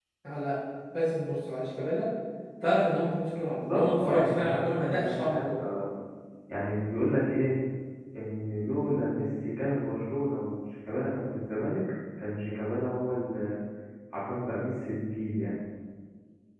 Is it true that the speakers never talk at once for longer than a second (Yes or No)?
No